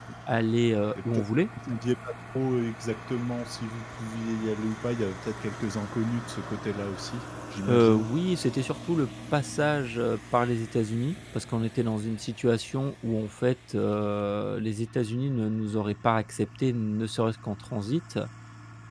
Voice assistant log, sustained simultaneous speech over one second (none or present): none